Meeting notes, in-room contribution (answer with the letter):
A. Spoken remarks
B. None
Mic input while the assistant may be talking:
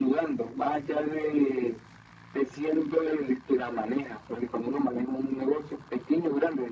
B